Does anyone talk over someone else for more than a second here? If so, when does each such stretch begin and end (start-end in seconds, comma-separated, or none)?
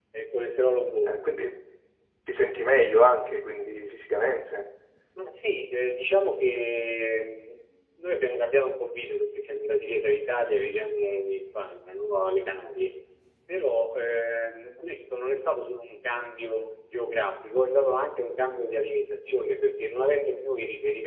none